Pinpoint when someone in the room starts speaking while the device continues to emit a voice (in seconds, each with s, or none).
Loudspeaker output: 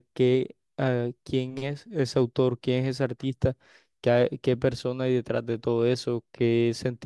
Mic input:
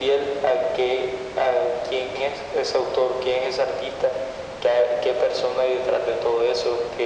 none